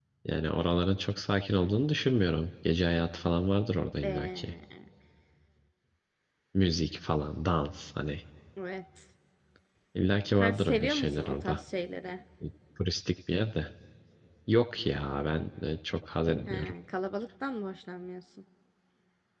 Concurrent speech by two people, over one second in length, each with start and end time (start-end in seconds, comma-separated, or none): 10.4-11.6